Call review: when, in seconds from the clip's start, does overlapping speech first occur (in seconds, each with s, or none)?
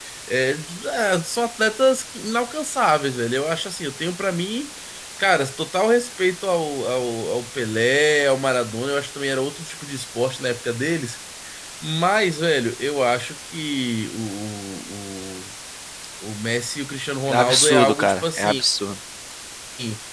17.3 s